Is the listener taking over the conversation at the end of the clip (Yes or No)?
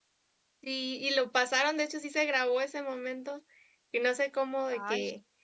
No